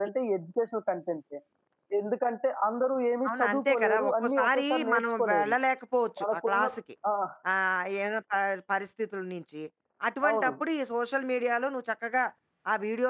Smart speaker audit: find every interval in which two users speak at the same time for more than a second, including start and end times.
3.3-5.5

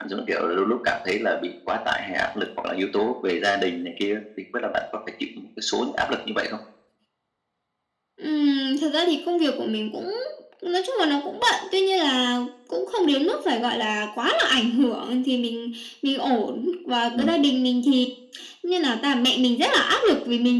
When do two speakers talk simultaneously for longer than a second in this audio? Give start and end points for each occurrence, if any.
none

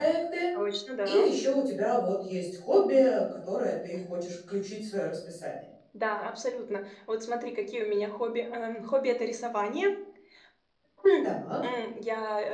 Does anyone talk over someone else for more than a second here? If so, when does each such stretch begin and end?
none

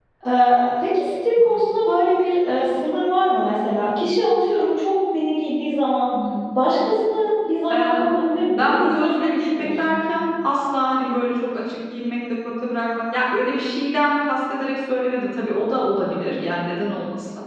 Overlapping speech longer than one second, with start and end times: 8.6-10.0

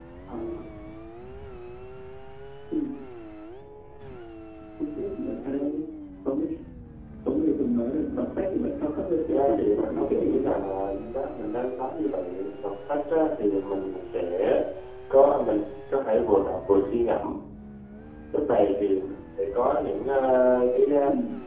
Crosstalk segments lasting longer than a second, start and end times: 9.3-10.6

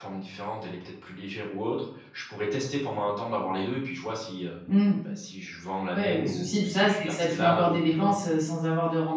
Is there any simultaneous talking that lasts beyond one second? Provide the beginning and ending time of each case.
5.9-8.1

